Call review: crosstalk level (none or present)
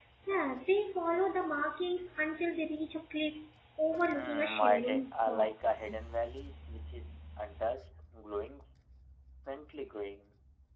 present